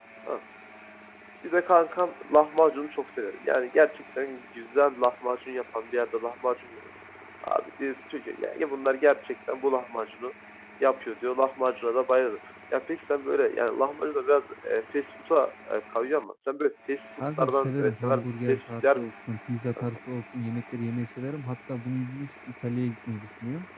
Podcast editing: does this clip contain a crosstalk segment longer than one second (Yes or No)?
Yes